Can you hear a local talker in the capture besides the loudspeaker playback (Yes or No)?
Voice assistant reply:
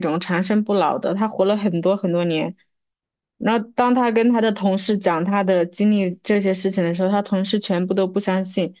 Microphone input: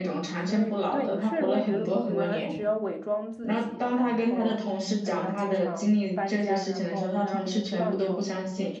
Yes